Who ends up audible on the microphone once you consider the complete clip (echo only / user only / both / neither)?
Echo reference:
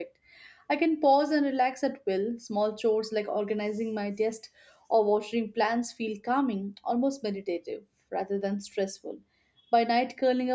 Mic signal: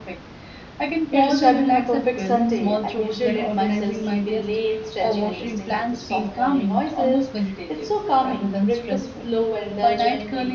both